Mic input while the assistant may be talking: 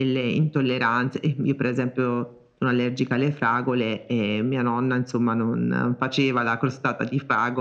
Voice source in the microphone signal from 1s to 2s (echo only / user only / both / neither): echo only